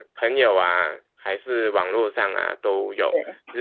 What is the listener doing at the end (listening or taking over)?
listening